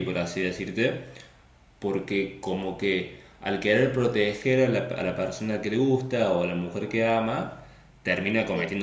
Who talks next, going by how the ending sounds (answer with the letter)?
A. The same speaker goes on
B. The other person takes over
A